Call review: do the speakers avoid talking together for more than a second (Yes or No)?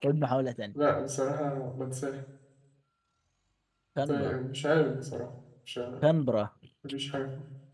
Yes